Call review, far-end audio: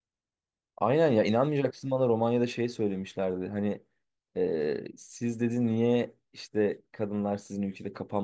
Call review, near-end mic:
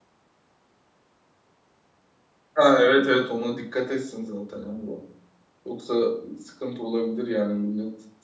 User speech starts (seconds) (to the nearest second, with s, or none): 3 s